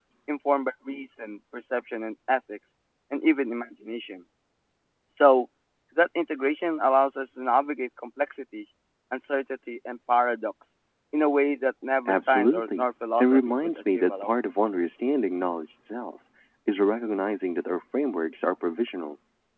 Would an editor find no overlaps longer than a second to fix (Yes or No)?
No